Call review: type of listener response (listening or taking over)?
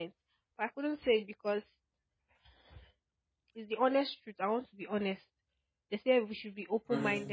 listening